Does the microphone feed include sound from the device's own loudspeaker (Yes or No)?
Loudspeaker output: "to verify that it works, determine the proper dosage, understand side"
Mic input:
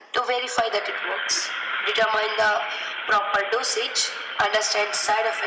Yes